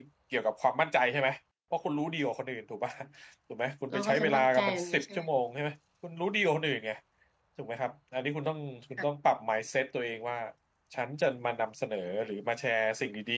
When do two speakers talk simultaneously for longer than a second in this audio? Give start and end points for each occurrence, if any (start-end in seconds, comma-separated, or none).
3.9-5.2